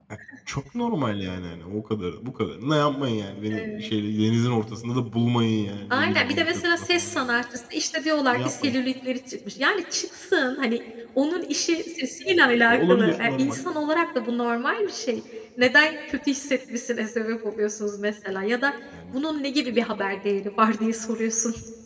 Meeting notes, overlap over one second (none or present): present